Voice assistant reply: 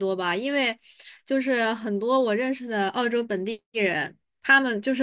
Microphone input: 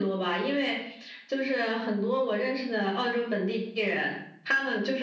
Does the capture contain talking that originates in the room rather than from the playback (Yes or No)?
No